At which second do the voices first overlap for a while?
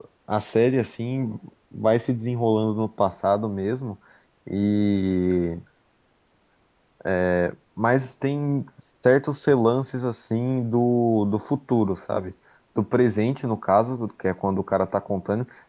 none

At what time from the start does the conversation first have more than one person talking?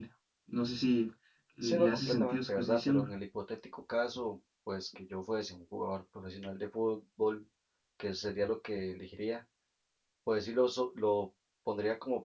1.6 s

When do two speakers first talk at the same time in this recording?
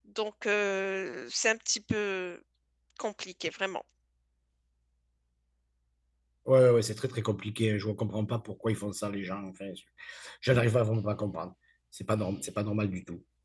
none

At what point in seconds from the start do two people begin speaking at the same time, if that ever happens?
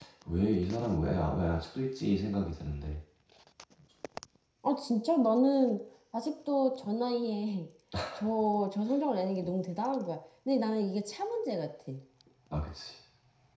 none

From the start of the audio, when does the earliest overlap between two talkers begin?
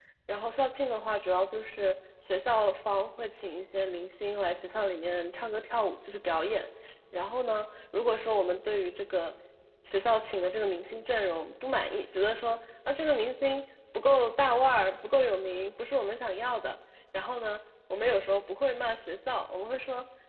none

